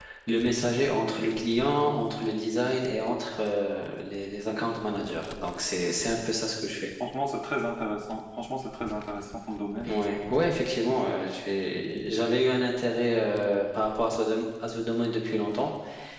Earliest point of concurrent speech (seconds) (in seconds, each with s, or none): none